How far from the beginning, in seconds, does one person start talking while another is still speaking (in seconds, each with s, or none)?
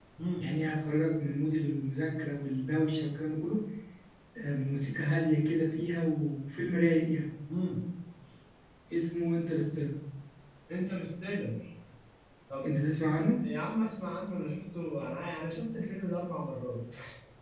none